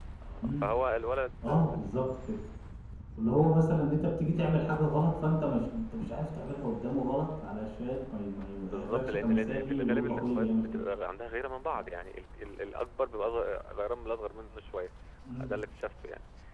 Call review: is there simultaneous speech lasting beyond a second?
Yes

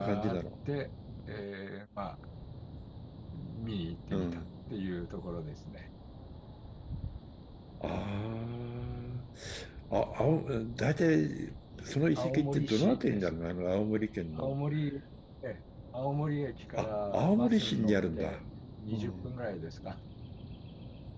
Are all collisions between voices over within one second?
No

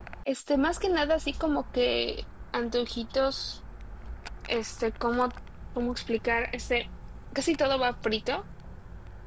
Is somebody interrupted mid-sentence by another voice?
No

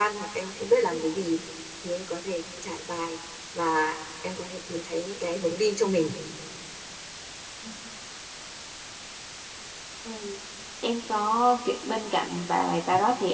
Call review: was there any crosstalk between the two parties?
No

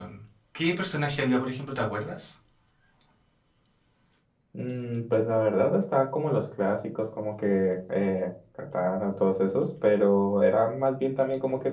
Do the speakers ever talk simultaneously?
No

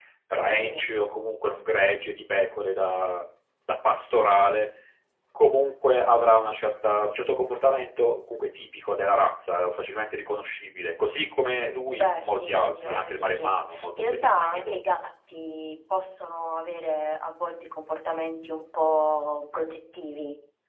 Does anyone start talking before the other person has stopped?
Yes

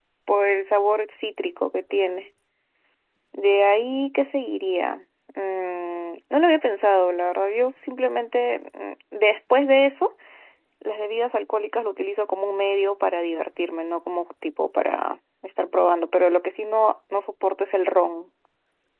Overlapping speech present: No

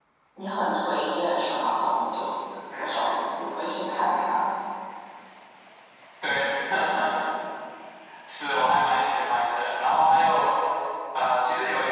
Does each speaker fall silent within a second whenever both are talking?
Yes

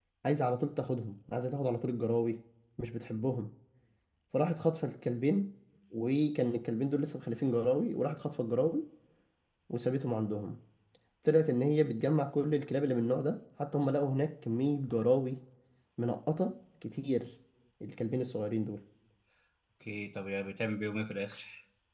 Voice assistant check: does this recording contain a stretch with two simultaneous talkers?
No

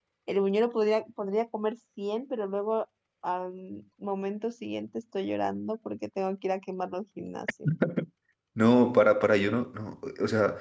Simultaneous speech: No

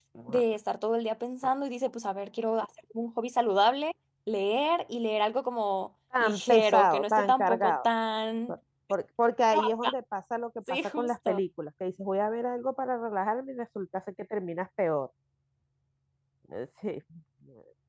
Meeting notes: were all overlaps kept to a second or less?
No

